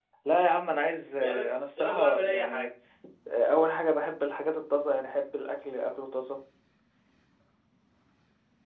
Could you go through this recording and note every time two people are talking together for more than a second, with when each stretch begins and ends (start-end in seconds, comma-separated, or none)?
1.2-2.7